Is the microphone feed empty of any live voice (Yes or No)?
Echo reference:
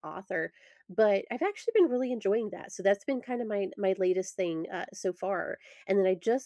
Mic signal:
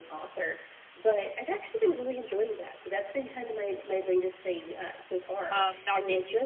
No